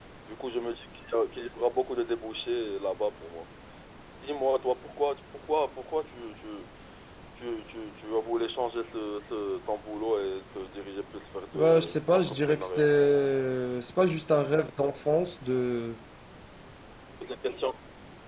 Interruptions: present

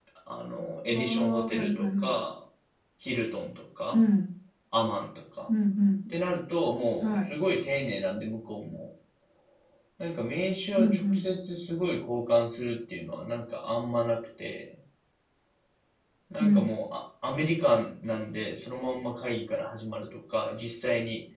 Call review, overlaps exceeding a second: present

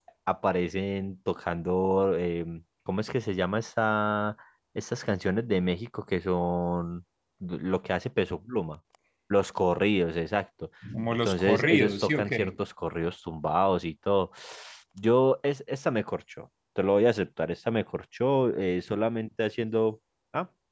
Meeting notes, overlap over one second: present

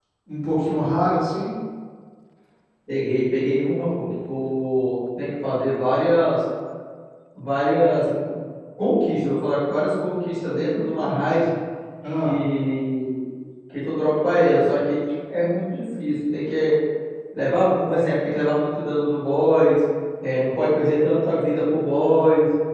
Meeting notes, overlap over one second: none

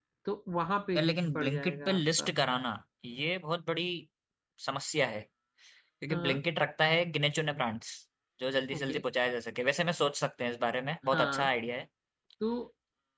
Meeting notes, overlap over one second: present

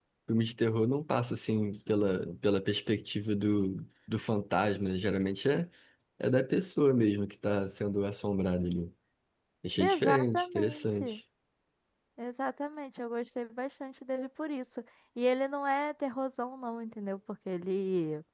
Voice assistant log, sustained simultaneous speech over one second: present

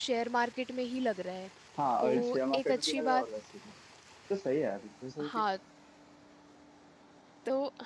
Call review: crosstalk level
present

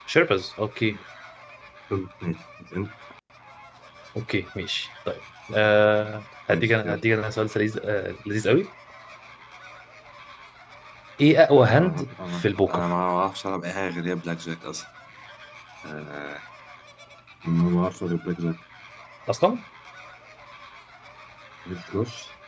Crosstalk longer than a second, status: present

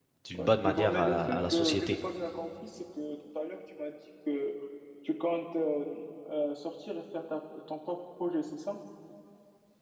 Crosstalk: present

